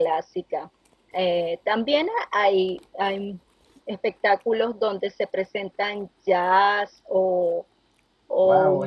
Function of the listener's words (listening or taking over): taking over